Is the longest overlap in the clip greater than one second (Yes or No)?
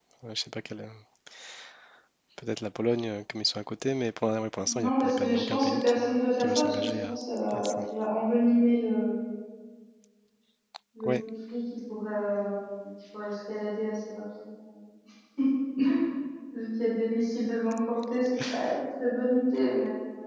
Yes